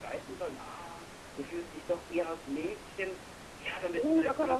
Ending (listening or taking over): taking over